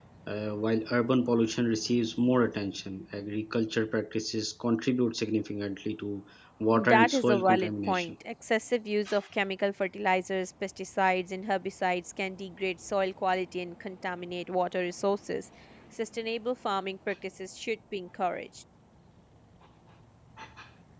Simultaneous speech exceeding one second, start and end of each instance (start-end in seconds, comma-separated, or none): 6.7-8.1